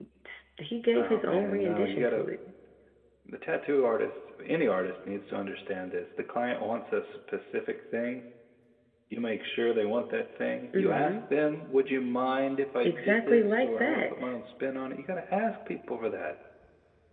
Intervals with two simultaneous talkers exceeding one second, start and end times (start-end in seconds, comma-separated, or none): 0.9-2.3, 12.8-14.3